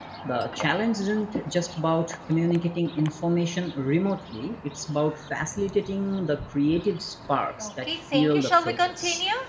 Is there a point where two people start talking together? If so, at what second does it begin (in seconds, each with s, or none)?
7.6 s